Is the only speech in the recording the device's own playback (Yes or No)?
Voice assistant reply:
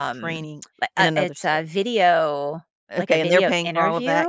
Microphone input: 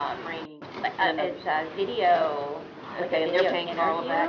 Yes